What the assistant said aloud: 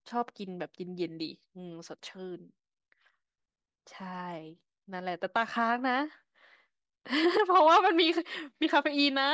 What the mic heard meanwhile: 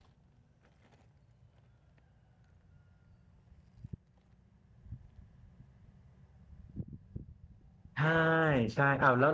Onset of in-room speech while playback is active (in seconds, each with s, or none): 7.9 s